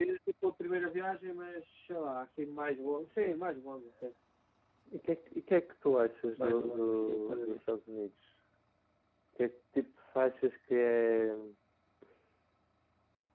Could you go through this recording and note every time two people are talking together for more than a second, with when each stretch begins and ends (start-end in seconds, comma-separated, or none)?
6.4-7.6